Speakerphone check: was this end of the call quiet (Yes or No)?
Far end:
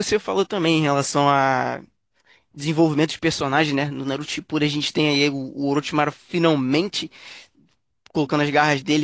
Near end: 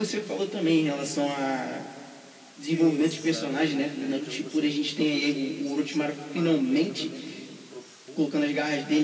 No